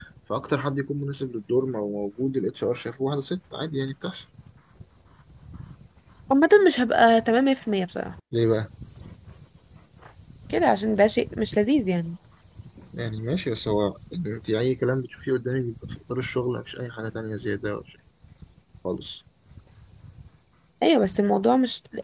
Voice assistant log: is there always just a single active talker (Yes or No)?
Yes